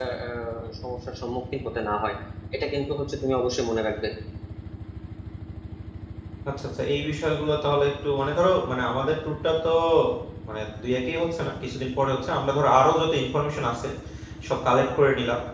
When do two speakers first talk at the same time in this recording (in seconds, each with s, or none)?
none